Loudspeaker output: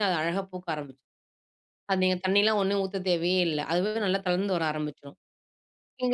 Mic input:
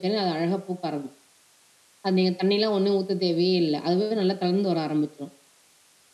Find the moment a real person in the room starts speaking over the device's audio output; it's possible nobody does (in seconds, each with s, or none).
none